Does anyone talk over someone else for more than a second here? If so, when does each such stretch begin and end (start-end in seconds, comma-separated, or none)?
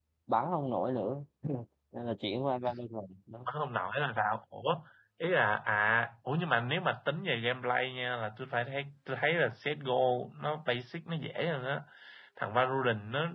none